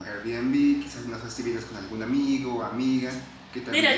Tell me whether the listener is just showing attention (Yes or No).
No